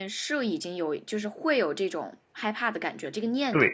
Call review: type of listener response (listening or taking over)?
taking over